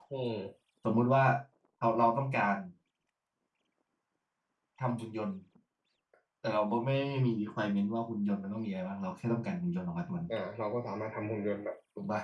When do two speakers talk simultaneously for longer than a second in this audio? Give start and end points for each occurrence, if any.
none

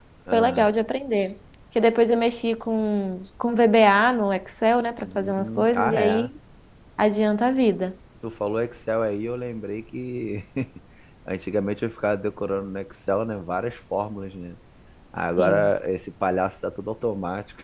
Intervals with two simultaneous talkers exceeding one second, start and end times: 5.0-6.3

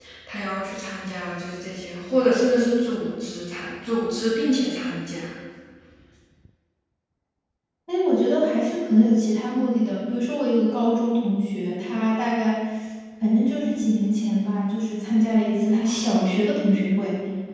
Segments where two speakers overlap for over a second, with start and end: none

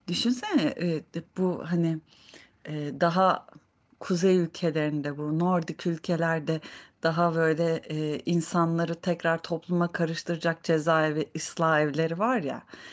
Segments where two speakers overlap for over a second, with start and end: none

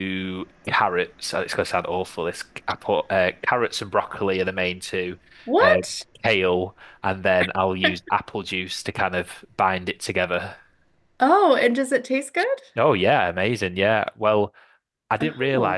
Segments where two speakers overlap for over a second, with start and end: none

